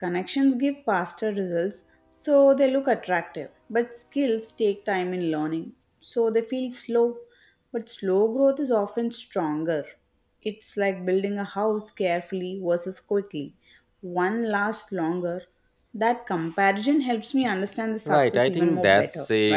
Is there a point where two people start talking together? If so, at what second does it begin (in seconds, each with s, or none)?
18.1 s